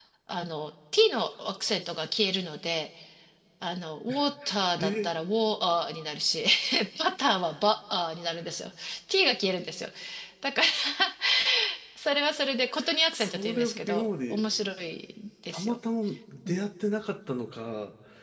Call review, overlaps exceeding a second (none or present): present